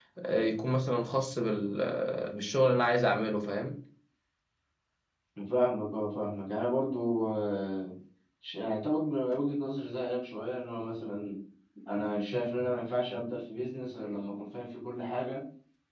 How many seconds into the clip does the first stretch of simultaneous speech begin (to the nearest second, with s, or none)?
none